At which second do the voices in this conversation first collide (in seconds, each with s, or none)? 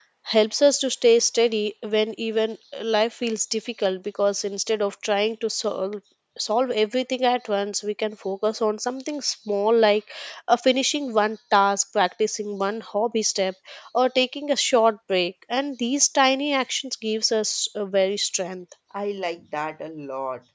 none